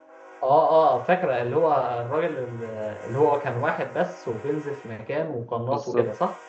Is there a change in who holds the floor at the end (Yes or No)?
Yes